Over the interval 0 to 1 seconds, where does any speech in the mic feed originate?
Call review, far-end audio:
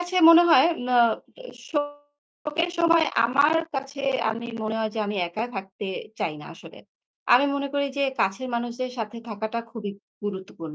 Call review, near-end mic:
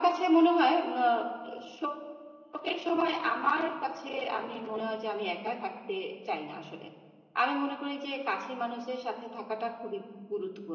echo only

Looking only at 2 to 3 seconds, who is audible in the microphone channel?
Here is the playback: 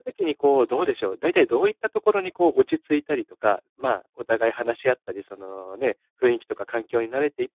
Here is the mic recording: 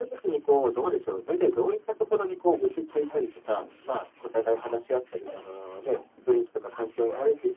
echo only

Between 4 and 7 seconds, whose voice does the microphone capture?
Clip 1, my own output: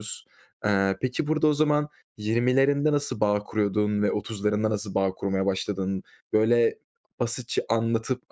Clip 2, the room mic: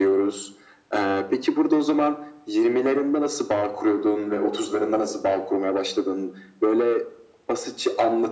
echo only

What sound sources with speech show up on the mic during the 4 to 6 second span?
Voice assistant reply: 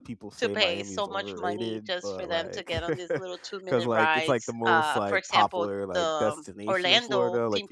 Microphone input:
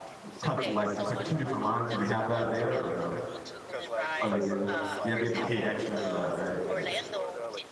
both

